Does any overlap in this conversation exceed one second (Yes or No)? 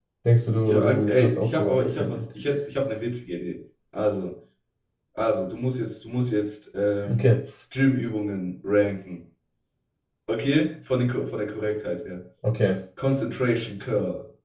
Yes